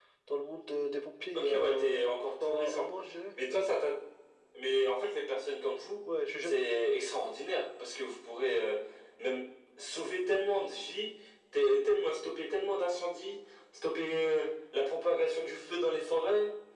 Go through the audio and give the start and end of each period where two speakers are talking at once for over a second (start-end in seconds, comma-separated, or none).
1.4-2.8